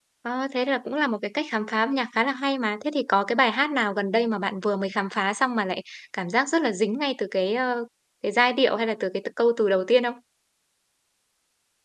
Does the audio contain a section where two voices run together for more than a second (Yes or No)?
No